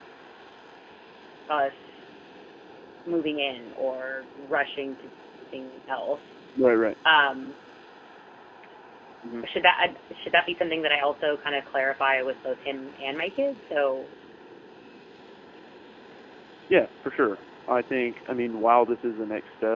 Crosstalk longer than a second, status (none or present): none